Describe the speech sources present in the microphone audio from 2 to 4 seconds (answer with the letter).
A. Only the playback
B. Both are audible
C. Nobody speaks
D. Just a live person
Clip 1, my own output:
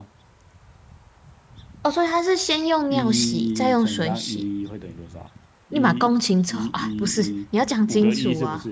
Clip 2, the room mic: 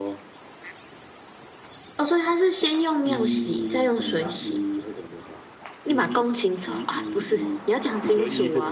A